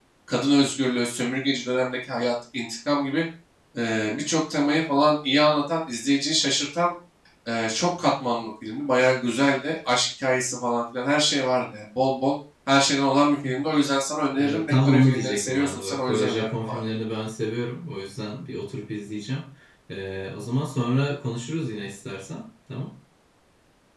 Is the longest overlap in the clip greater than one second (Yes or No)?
Yes